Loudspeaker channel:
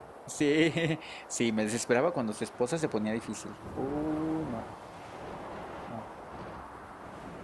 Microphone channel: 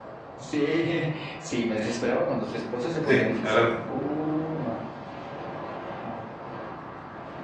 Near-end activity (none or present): present